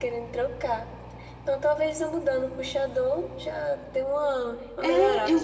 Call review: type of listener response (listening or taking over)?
taking over